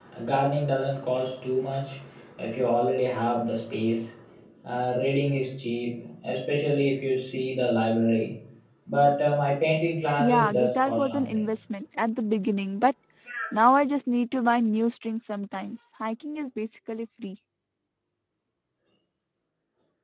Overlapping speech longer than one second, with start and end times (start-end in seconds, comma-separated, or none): 10.2-11.4